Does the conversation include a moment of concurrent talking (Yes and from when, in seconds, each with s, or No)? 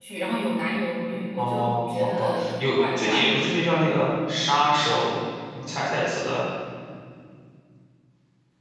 Yes, from 1.4 s